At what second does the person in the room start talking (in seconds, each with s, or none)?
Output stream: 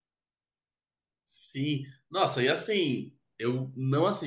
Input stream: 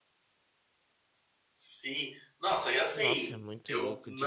2.9 s